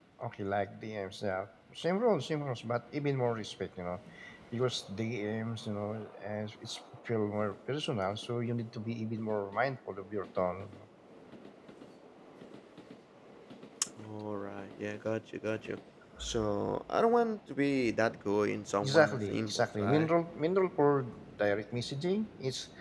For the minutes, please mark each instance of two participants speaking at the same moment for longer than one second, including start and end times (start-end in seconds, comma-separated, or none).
18.8-20.1